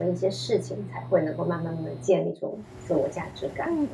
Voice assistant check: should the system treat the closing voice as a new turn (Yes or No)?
Yes